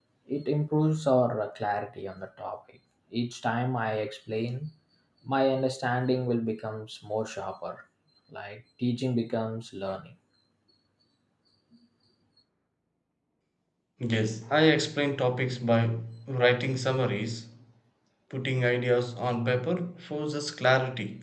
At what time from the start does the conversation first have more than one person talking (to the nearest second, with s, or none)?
none